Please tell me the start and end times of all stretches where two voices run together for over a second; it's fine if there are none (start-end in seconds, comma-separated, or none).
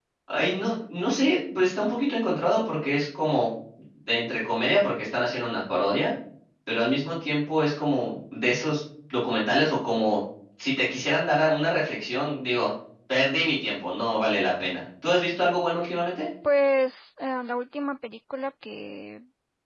none